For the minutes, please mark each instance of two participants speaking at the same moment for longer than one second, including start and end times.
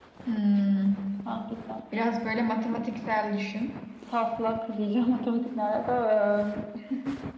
none

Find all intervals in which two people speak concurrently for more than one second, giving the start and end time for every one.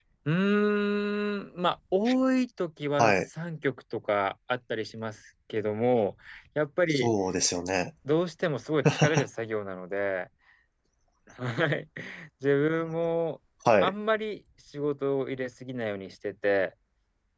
none

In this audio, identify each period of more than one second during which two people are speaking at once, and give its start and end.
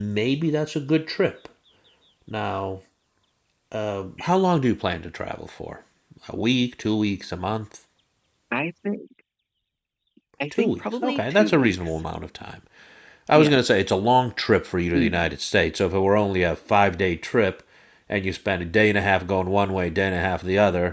10.5-11.9

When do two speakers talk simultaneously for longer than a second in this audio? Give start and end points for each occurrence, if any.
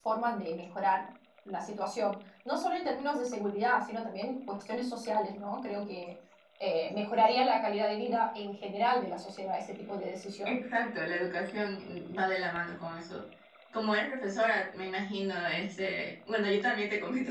none

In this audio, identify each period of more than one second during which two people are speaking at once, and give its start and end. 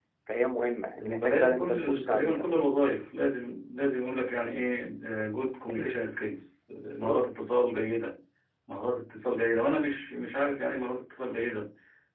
0.9-2.4

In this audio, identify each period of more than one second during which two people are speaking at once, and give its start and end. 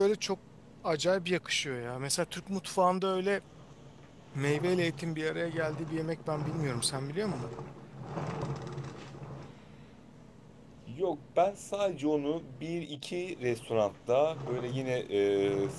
none

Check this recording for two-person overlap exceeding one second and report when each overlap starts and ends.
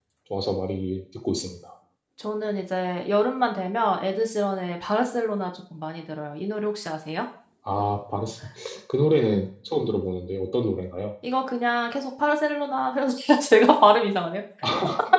none

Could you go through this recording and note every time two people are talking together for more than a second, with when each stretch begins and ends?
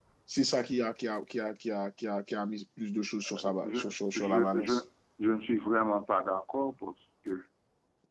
3.3-4.7

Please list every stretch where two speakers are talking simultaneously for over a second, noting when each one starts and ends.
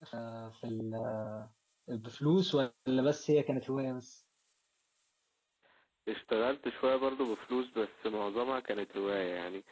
none

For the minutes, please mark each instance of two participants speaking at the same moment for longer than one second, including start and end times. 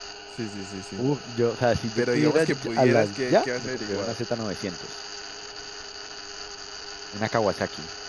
2.0-4.2

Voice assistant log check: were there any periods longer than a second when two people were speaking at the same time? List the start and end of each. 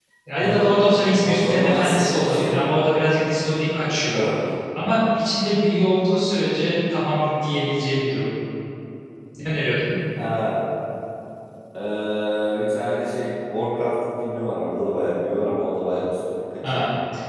1.2-2.5

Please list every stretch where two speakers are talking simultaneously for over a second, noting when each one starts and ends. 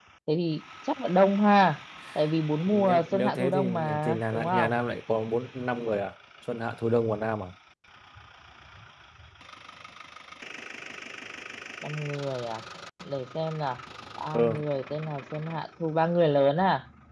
2.7-4.7

